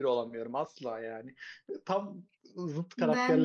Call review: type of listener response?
taking over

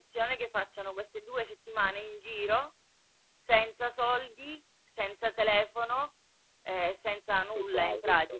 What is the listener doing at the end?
listening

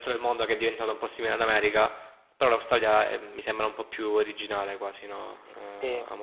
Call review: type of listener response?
taking over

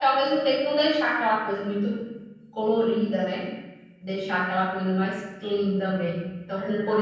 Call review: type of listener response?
listening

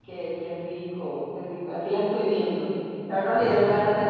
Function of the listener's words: listening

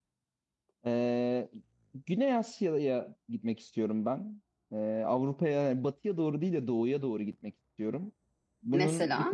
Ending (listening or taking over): listening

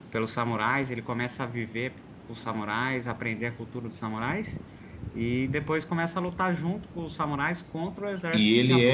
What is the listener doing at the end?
taking over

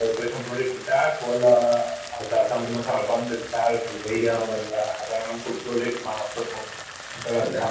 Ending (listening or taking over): listening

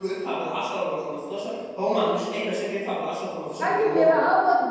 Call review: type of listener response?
taking over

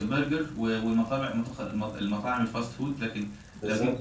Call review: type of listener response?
listening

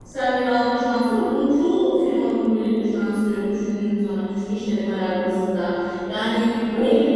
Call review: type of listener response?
listening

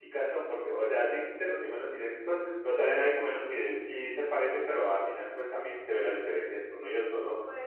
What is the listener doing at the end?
taking over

